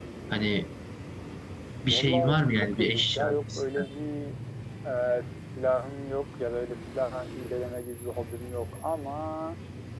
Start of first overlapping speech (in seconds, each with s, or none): 1.9 s